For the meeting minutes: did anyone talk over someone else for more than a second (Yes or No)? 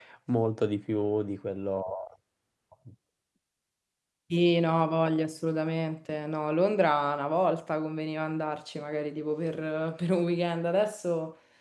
No